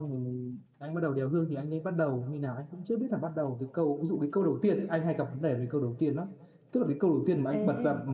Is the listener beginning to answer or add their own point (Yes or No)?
No